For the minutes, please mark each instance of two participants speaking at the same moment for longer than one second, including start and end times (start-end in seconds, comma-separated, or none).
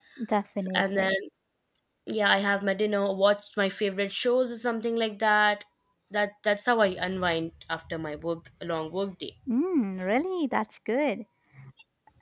none